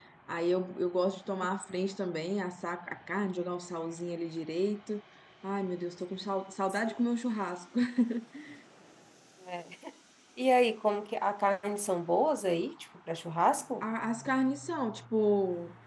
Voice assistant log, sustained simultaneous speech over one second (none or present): none